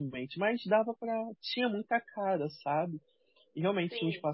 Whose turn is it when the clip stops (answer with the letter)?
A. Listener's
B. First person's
B